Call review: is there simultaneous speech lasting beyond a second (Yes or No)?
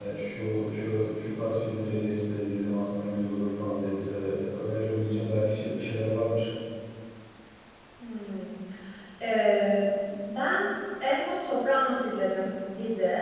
No